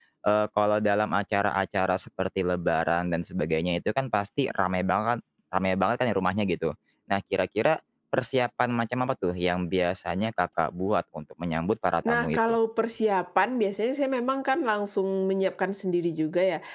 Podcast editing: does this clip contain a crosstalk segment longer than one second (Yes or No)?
No